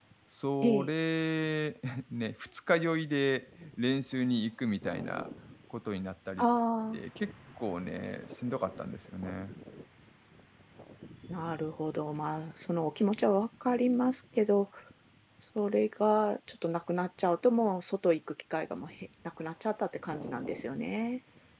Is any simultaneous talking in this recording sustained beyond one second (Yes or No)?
No